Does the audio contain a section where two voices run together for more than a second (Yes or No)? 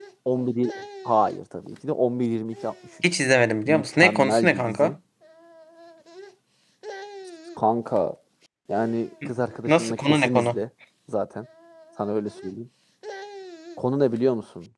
Yes